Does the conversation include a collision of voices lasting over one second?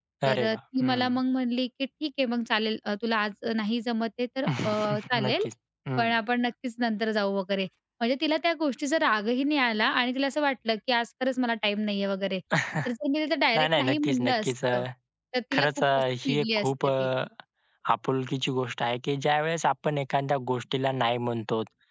Yes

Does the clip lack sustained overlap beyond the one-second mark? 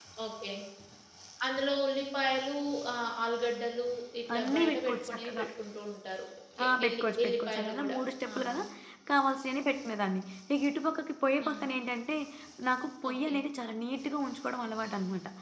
No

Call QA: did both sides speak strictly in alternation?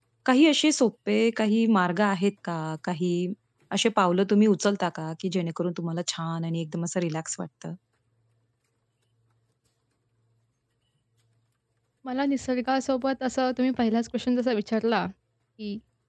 Yes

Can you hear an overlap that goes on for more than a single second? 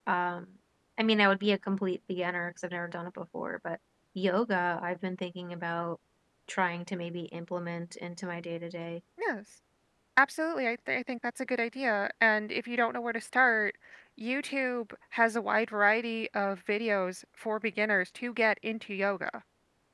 No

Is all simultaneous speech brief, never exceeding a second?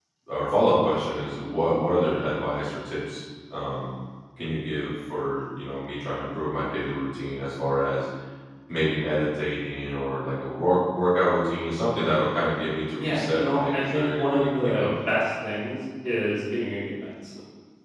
No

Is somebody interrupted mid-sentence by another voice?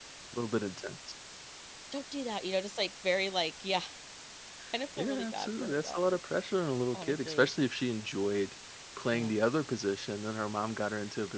Yes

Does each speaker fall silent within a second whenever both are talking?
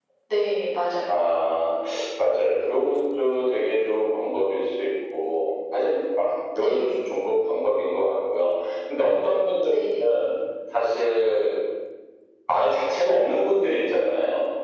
Yes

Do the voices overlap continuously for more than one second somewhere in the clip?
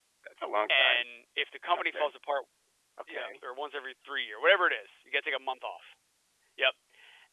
No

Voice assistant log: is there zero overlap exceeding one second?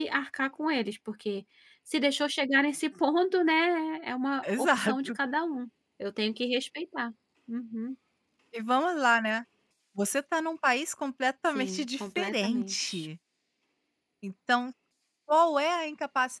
No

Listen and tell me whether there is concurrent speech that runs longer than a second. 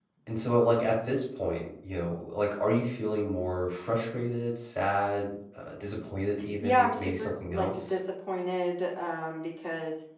Yes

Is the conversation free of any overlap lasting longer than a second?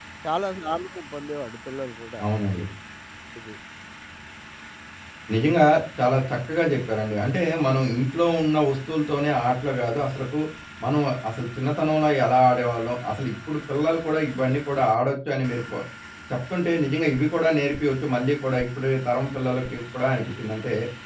Yes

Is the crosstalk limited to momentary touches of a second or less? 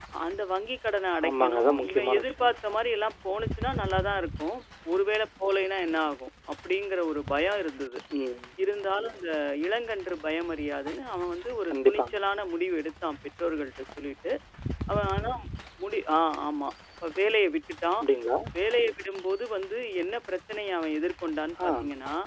No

